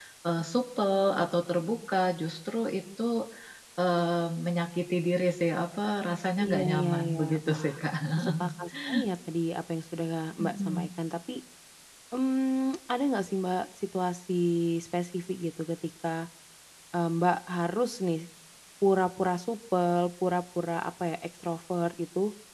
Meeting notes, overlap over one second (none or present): present